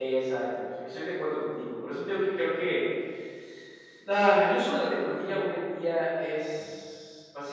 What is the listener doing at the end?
listening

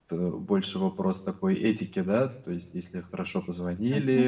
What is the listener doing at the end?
listening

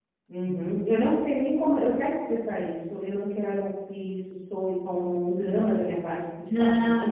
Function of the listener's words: taking over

